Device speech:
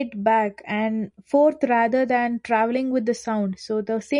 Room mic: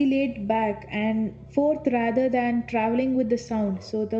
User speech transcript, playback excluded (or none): none